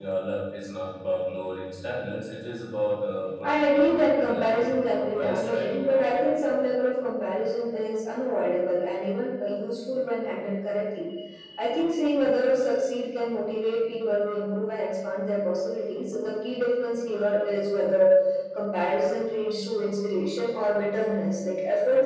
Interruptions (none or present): present